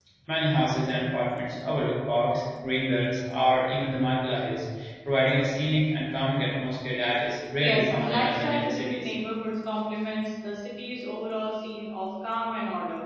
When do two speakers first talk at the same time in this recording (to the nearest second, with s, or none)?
8 s